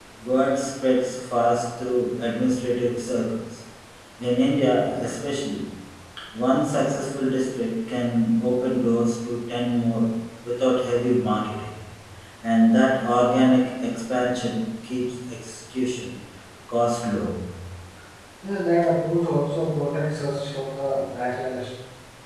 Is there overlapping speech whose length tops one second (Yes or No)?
No